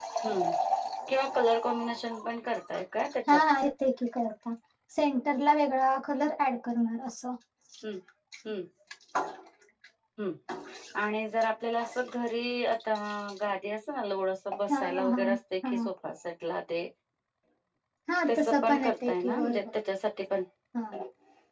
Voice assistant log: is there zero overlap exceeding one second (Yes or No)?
No